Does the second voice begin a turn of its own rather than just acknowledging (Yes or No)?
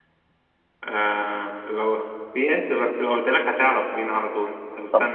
Yes